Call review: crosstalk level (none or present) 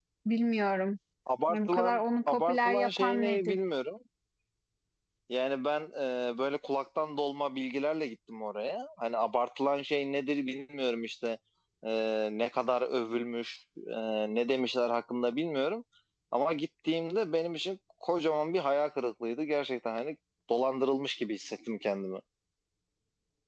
present